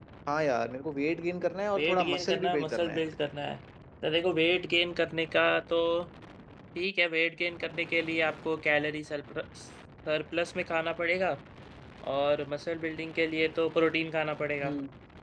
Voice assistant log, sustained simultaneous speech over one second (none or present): present